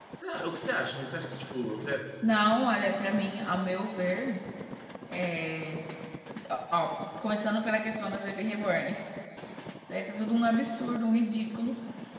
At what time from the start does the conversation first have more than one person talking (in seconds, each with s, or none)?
none